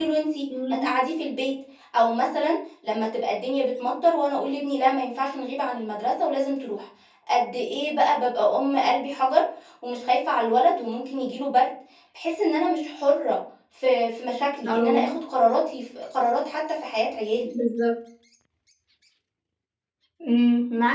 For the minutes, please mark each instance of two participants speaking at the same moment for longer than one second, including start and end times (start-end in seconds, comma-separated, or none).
none